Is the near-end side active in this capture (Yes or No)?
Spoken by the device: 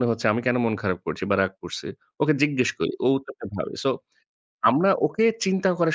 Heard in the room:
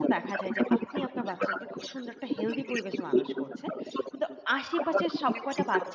Yes